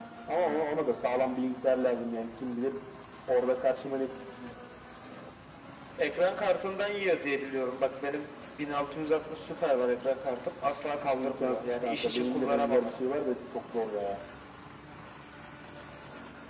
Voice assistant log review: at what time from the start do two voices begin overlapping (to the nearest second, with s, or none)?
11 s